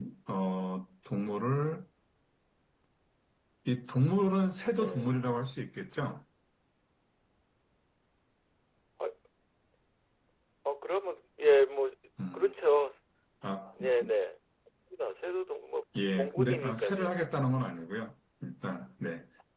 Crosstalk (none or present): present